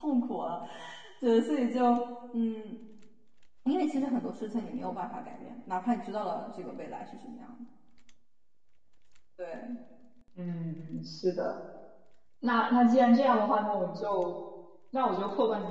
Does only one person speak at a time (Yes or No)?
Yes